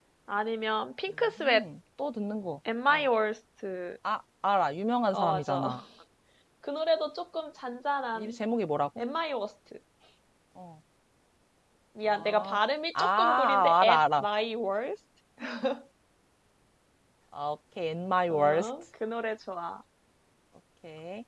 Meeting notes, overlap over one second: present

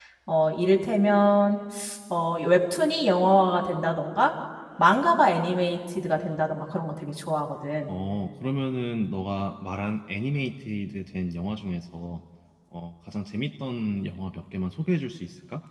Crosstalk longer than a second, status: none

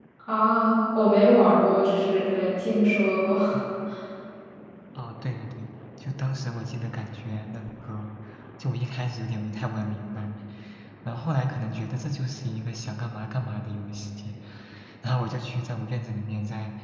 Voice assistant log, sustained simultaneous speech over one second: none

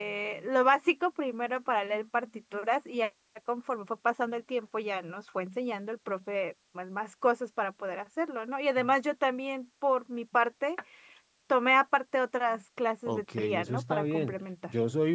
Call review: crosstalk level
present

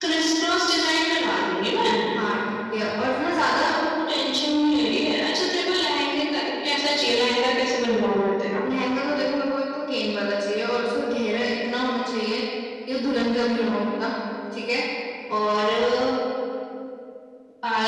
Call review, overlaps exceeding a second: none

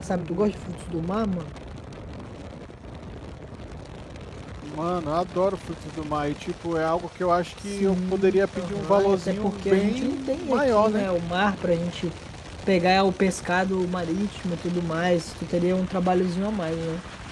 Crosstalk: present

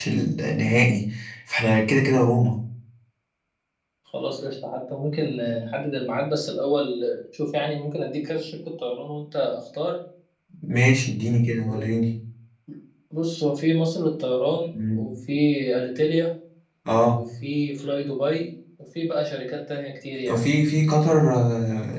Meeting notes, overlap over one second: none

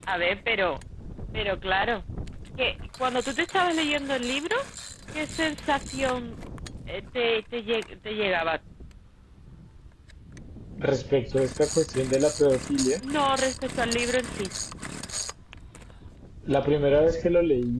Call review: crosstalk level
none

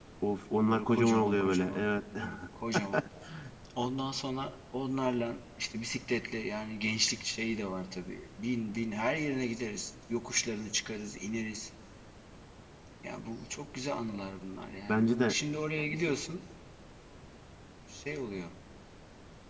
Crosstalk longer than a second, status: present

